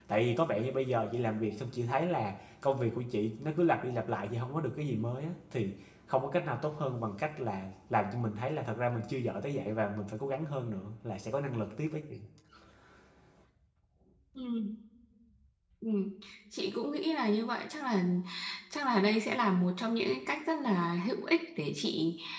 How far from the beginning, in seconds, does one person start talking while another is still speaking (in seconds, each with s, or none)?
none